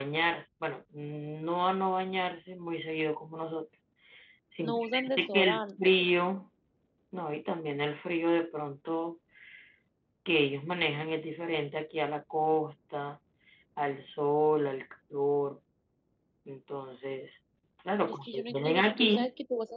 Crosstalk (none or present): present